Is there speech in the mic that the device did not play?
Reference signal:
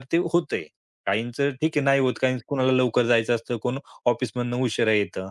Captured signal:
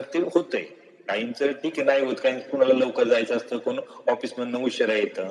No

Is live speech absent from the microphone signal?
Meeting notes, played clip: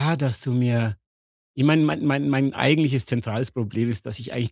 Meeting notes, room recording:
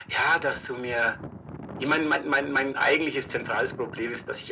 Yes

